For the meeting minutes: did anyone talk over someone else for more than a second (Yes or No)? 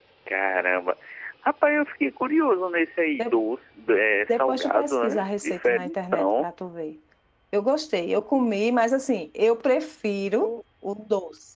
Yes